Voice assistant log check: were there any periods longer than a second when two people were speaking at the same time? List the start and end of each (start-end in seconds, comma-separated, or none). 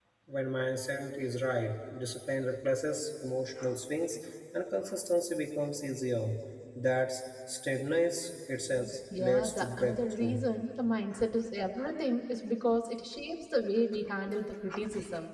9.2-10.4